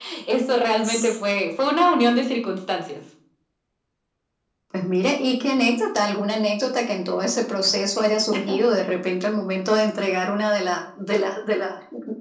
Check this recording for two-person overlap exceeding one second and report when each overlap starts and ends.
none

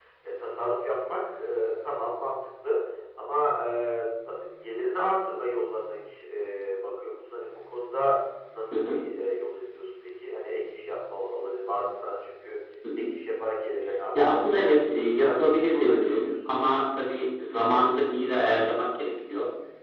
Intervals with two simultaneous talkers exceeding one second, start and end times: 14.2-16.3

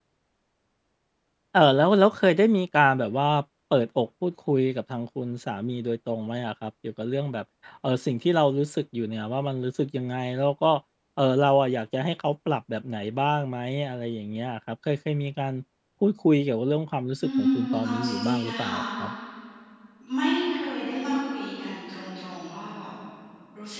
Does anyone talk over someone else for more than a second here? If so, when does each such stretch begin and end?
17.2-18.8

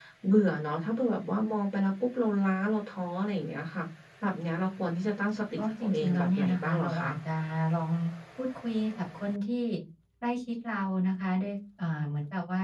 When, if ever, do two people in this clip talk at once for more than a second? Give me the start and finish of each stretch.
5.6-7.1

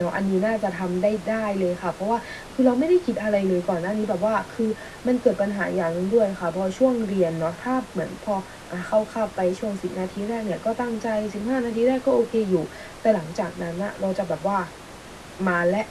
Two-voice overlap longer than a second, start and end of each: none

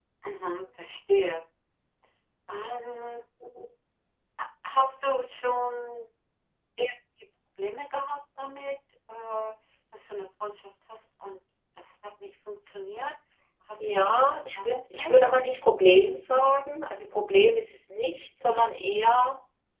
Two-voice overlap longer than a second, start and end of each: 13.8-15.1

